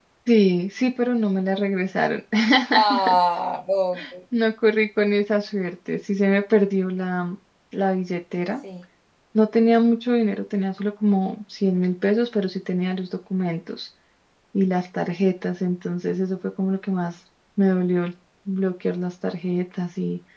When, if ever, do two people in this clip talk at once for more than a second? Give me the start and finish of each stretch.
none

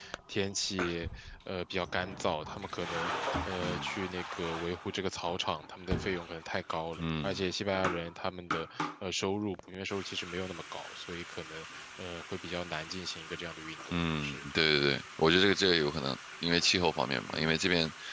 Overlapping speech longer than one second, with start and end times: none

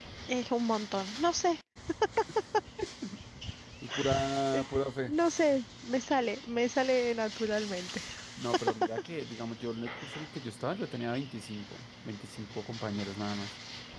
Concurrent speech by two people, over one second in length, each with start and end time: none

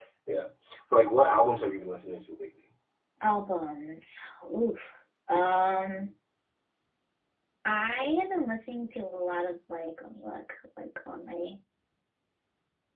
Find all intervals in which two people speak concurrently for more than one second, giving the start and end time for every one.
none

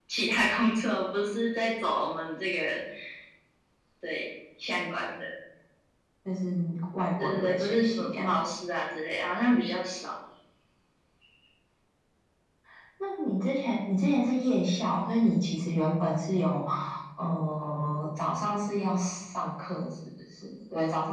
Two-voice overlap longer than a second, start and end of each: 7.2-8.4

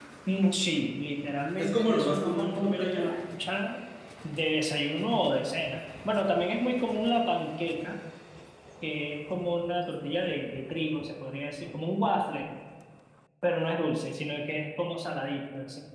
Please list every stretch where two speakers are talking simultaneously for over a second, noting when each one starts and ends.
1.6-3.1

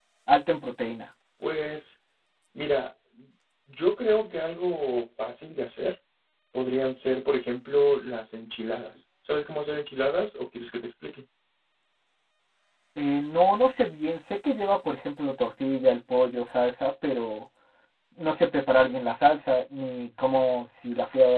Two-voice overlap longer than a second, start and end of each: none

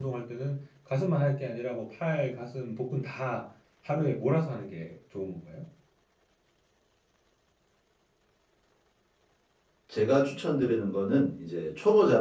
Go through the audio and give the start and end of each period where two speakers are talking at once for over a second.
none

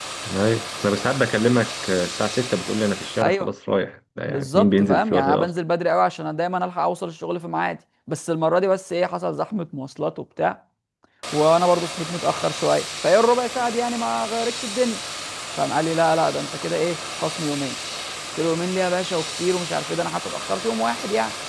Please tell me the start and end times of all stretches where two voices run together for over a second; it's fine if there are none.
4.3-5.5

